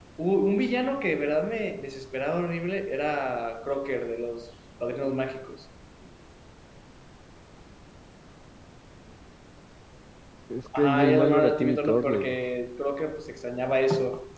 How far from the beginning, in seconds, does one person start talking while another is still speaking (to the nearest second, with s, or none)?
11 s